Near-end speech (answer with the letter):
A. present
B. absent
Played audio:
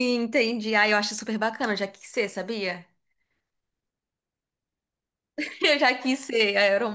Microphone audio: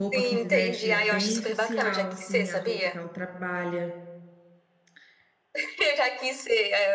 A